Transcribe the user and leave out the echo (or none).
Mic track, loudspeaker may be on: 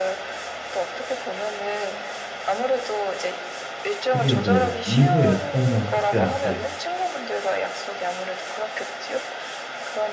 근데 이제 이후에 "어 나 그때 안 돼."